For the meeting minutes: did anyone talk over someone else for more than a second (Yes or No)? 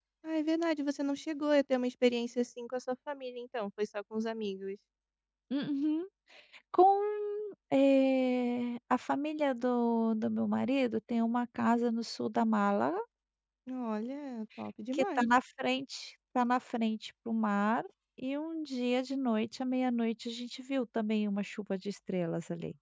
No